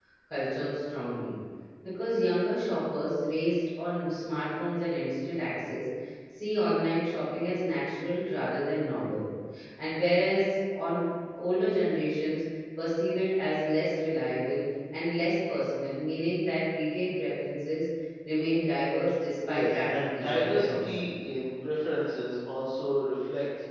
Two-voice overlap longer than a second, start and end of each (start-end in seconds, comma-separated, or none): 19.5-21.1